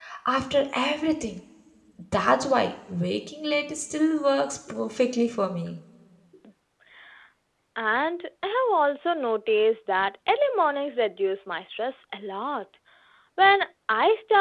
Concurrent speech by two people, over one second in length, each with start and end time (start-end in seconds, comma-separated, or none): none